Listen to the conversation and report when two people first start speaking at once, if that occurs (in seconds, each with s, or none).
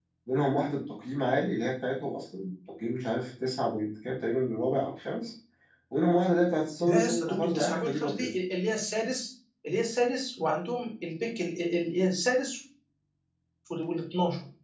6.8 s